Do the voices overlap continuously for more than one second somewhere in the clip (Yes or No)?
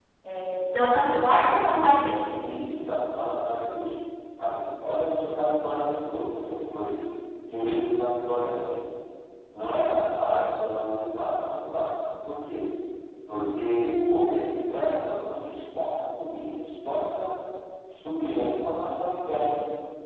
No